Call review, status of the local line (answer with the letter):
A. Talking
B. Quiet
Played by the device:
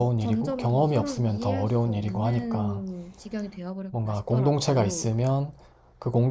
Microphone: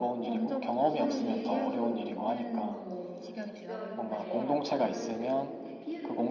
A